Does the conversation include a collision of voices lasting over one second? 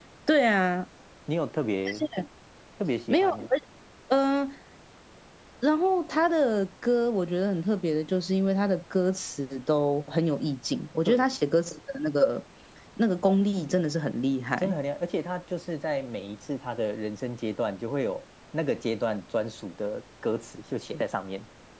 No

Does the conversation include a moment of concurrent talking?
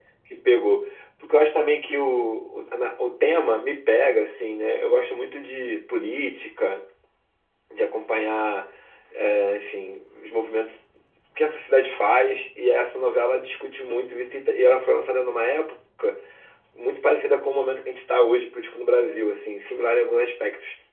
No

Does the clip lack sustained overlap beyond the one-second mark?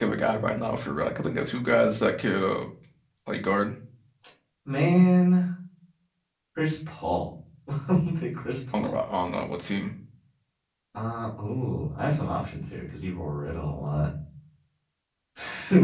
Yes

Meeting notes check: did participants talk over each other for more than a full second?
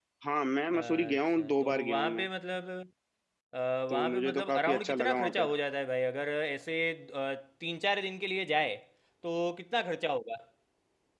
Yes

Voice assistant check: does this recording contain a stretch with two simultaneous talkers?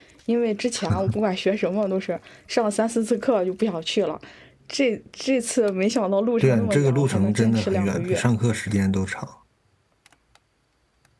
Yes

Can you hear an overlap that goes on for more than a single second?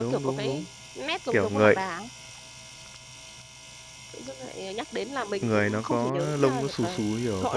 Yes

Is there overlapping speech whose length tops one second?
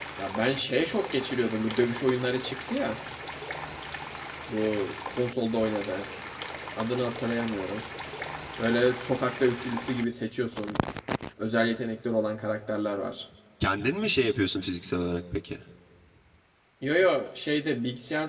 No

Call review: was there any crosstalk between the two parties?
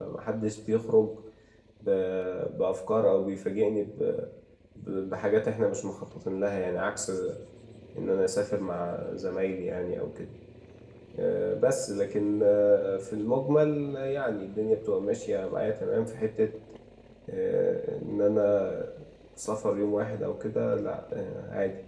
No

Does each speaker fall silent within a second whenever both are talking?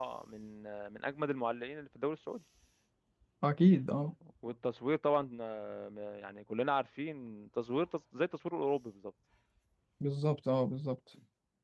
Yes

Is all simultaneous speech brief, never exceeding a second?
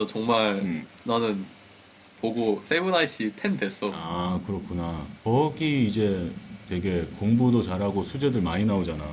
Yes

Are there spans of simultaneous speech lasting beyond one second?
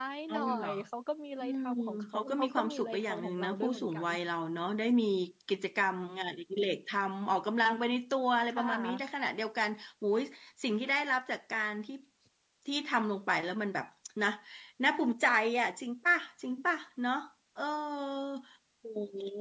Yes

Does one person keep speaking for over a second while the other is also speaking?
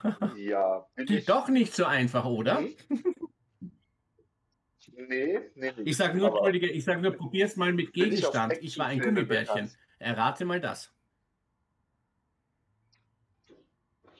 Yes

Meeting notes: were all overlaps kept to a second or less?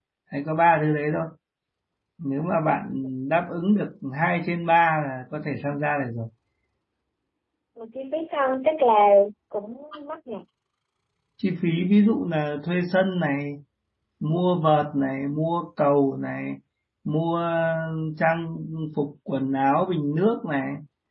Yes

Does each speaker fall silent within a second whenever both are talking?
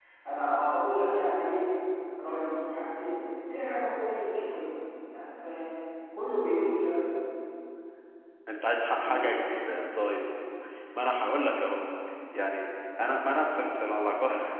Yes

